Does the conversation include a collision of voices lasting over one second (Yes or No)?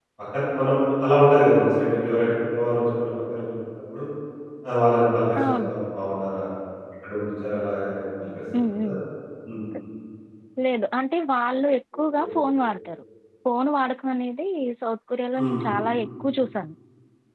No